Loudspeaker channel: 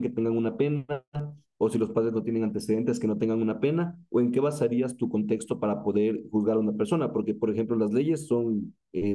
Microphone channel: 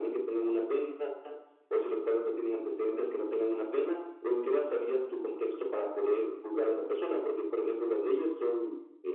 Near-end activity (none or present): none